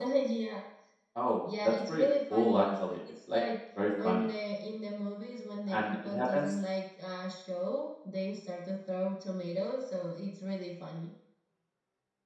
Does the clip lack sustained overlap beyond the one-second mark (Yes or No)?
No